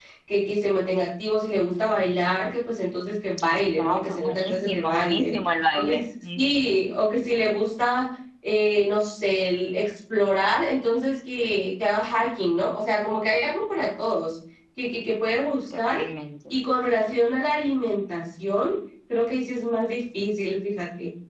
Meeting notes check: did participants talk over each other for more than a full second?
Yes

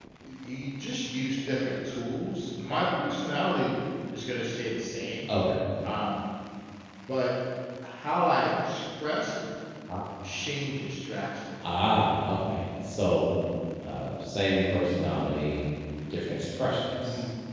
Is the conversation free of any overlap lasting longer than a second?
Yes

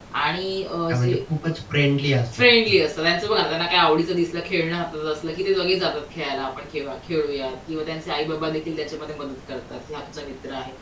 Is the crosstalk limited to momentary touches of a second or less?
Yes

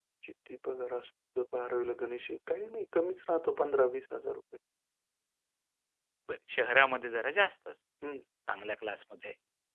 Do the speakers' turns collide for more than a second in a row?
No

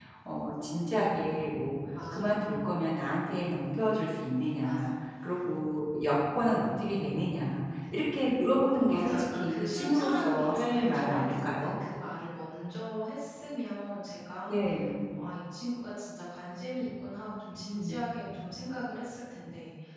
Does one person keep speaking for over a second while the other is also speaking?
Yes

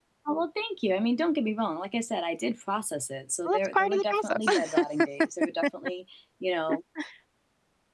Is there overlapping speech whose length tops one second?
Yes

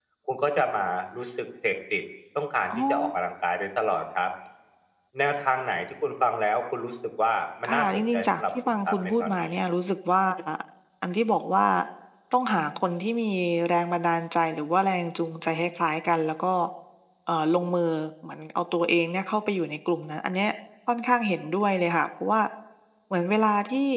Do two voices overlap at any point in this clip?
Yes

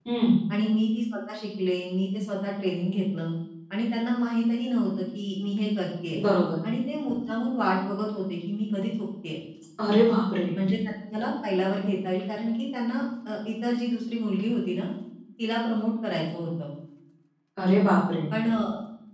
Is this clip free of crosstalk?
Yes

